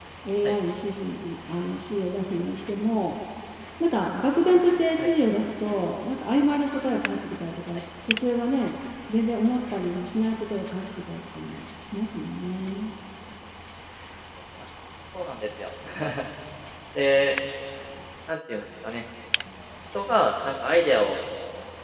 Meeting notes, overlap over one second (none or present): none